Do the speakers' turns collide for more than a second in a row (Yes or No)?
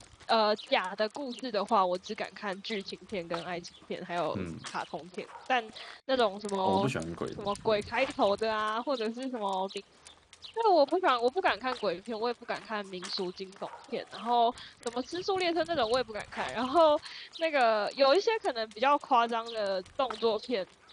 No